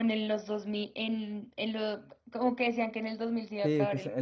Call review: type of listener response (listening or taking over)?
taking over